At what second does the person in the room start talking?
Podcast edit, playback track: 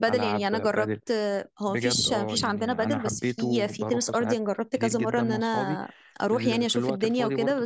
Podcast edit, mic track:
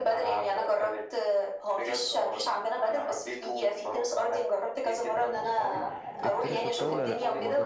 6 s

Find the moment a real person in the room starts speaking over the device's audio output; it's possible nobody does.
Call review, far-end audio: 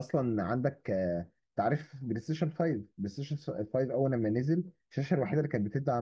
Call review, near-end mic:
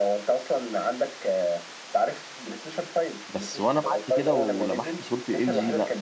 3 s

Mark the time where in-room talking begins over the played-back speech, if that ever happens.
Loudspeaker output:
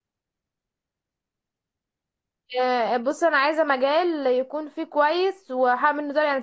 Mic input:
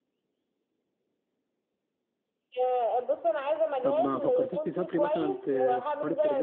4 s

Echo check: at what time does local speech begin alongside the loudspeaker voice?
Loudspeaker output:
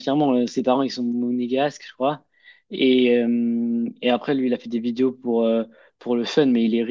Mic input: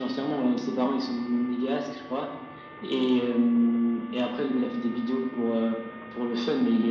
none

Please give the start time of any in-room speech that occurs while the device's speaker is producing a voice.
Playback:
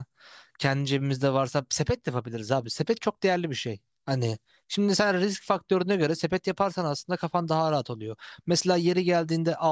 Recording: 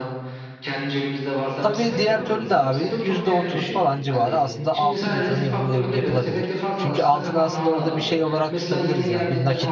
2 s

